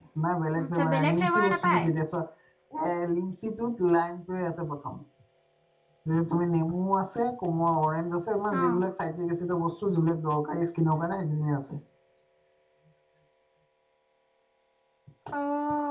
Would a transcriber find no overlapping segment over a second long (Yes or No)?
No